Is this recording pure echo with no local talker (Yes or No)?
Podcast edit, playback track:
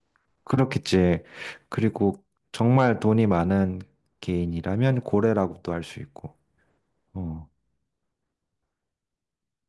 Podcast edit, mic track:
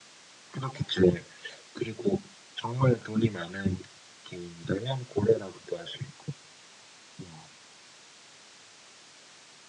Yes